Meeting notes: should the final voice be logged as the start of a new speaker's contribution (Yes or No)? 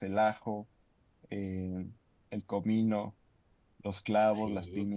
Yes